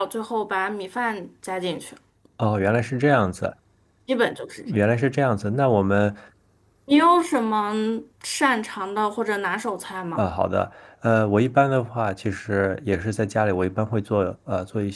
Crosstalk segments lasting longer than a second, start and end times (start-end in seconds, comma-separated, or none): none